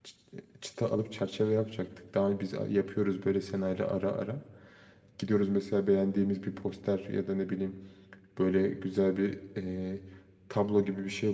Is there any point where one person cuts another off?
No

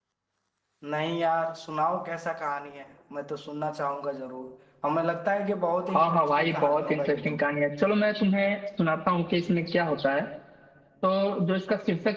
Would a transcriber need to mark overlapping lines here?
Yes, from 5.9 s

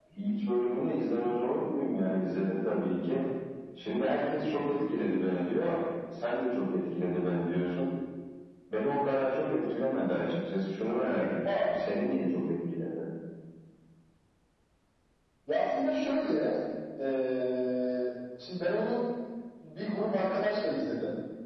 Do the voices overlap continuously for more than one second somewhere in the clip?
No

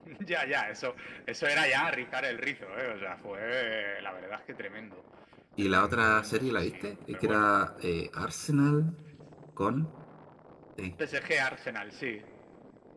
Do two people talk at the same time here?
Yes, from 5.6 s

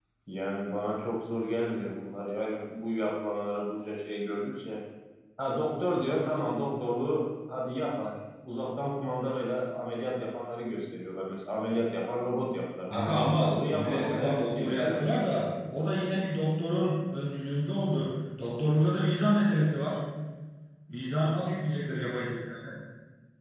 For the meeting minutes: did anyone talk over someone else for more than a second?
Yes, from 12.9 s

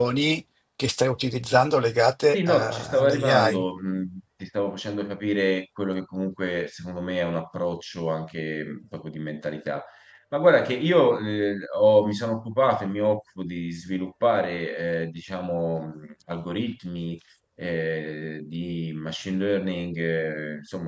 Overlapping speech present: Yes, from 2.3 s

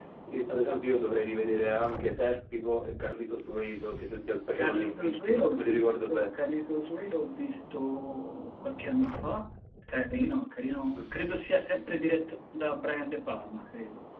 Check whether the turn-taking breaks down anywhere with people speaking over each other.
Yes, from 4.5 s

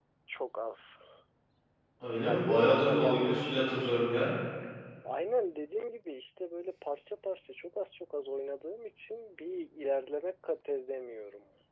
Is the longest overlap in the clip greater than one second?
Yes, from 2.3 s

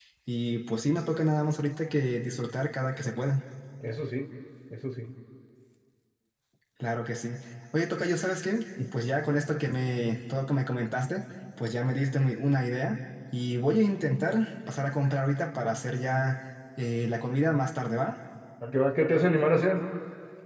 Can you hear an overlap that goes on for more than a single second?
No

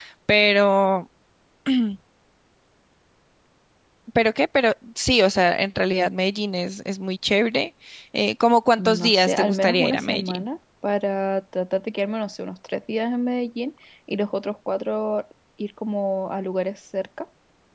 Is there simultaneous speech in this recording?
Yes, from 8.8 s

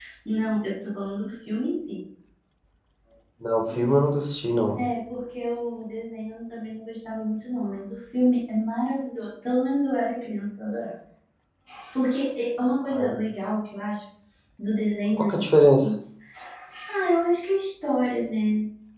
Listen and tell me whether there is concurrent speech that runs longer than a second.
No

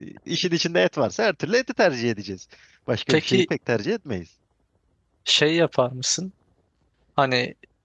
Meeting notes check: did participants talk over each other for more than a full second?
No

